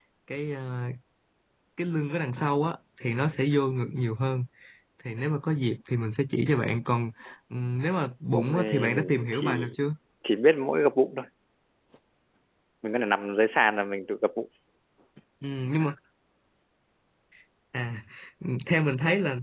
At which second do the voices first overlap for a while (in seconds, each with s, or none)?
8.3 s